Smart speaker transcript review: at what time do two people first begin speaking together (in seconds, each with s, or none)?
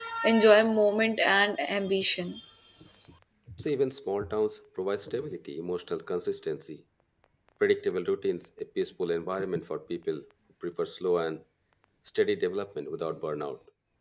none